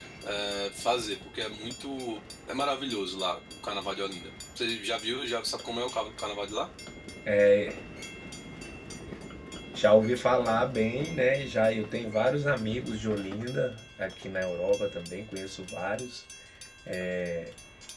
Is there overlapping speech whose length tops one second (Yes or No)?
No